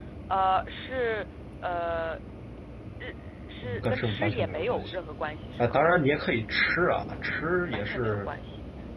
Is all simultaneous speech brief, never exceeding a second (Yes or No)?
No